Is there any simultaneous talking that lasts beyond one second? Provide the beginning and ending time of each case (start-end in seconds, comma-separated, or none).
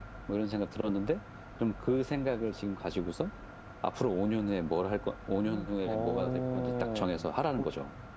5.4-7.2